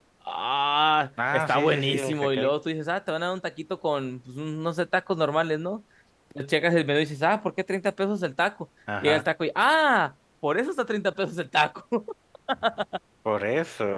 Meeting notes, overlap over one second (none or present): present